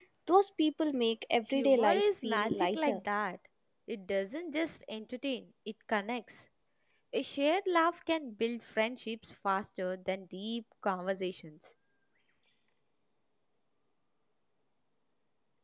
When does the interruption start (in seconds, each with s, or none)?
1.5 s